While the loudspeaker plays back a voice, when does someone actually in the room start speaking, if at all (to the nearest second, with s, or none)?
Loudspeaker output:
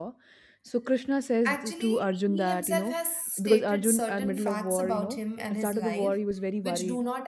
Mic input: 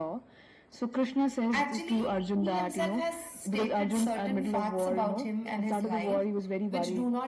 none